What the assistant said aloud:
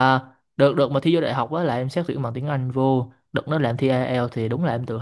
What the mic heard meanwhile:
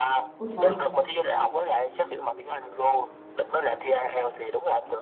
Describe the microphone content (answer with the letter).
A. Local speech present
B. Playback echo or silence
A